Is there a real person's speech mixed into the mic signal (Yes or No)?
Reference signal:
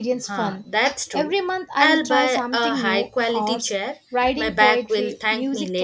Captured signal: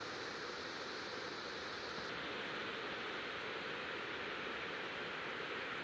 No